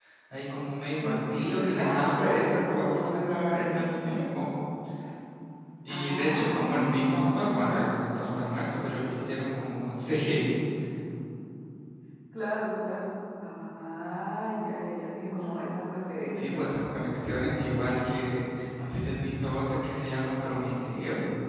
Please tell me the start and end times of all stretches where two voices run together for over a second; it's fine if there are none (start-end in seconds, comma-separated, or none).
1.0-2.5, 5.9-8.0